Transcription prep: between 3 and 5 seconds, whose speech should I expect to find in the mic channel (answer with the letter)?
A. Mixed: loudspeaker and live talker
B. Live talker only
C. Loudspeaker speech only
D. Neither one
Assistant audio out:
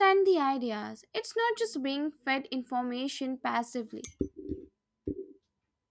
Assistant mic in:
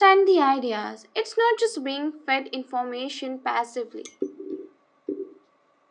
C